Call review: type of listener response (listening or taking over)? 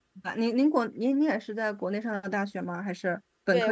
taking over